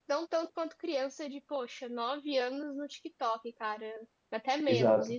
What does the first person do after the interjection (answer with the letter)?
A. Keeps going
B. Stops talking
B